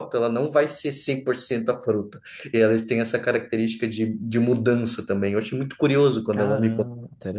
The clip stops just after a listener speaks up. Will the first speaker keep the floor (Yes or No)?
No